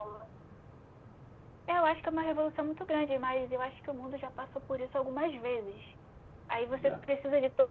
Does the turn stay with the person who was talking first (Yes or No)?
Yes